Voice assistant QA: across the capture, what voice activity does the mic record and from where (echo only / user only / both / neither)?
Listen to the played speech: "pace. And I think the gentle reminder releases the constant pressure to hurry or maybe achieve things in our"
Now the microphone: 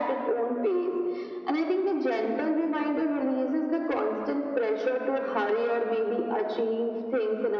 echo only